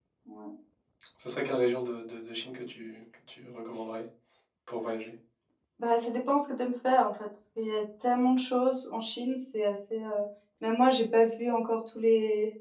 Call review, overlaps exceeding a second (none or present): none